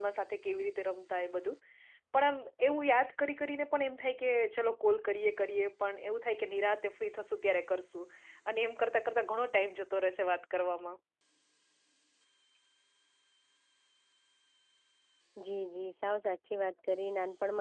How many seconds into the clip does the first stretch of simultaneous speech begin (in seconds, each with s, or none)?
none